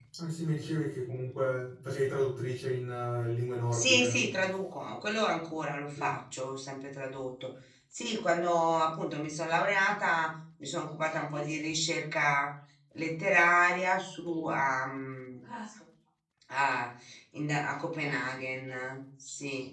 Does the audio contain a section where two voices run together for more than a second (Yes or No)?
No